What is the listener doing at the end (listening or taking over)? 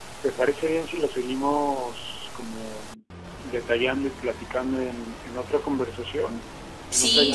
taking over